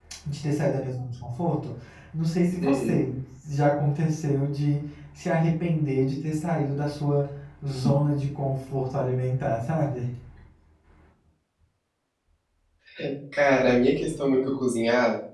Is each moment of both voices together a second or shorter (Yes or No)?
Yes